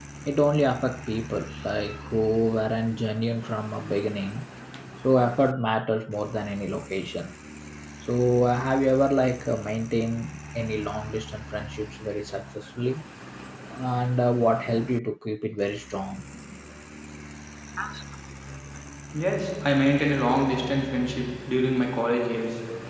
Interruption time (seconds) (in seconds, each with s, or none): none